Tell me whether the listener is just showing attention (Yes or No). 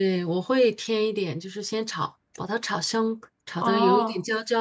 Yes